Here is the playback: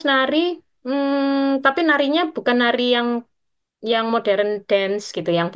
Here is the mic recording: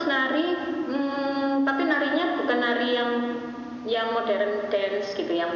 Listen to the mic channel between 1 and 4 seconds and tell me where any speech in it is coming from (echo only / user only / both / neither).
echo only